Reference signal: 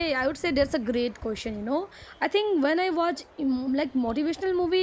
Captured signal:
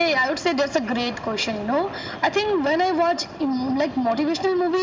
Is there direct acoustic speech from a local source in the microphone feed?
No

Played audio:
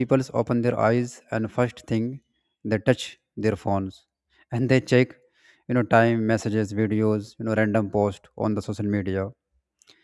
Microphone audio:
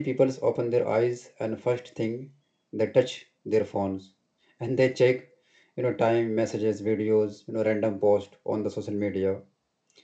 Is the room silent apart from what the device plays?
Yes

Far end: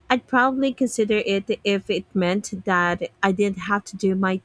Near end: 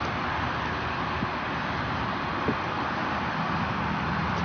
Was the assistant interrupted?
No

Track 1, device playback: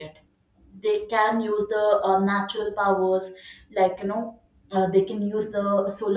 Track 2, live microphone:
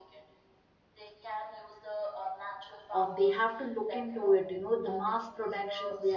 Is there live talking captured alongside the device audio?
Yes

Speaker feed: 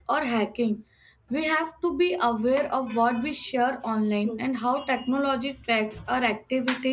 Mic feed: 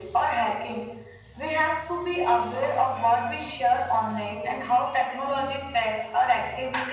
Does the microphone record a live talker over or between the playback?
No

